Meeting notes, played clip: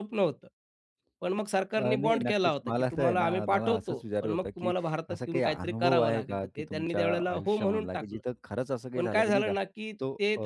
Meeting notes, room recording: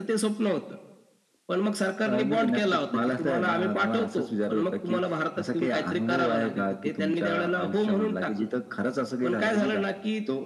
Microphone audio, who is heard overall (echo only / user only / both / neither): echo only